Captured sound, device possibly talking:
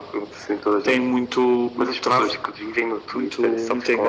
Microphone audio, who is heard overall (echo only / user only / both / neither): echo only